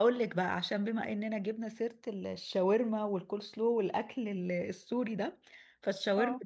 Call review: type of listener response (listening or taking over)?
listening